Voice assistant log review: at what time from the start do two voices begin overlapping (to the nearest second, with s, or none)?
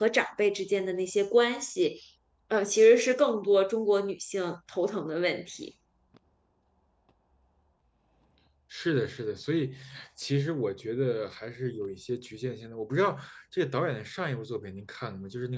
none